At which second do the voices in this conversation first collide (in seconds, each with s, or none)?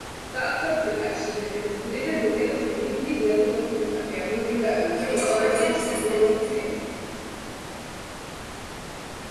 5.0 s